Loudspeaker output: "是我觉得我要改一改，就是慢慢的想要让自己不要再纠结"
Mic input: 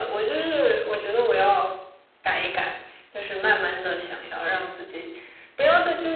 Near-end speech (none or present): none